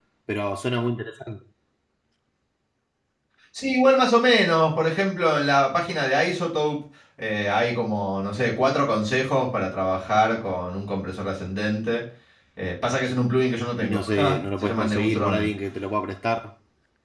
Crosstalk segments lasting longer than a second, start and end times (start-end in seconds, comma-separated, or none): 13.8-15.5